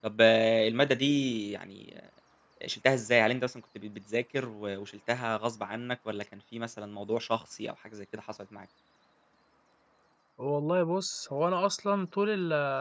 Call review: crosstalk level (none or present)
none